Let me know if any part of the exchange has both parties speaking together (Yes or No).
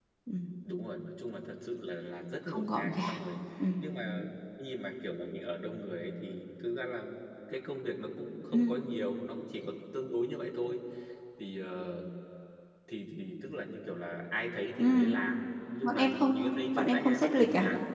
Yes